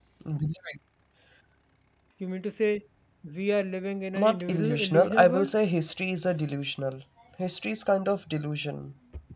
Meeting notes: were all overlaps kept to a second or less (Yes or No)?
No